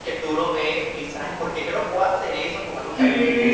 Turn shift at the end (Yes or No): Yes